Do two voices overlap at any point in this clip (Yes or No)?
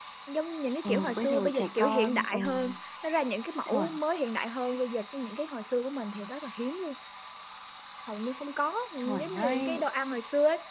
Yes